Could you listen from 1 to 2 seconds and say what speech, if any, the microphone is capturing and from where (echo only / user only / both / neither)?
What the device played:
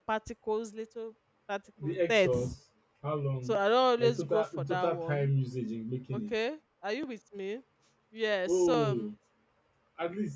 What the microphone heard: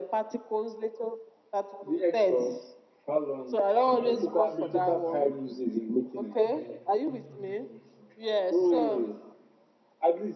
echo only